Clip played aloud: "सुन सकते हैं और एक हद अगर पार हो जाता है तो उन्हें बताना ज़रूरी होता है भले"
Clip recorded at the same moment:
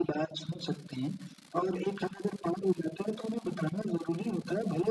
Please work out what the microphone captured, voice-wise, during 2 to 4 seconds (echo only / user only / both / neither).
echo only